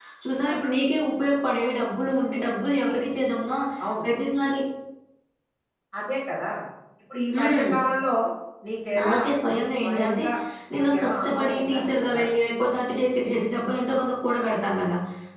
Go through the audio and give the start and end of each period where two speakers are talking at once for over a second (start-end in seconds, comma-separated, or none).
9.0-10.2, 10.7-12.3